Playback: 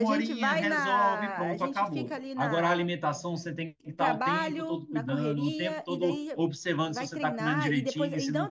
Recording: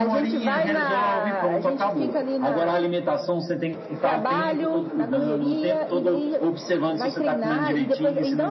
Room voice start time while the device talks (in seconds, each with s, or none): none